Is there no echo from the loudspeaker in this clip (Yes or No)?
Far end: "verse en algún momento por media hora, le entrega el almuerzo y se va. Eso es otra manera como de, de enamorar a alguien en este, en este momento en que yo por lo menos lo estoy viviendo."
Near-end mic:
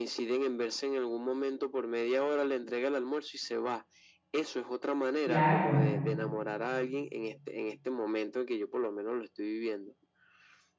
No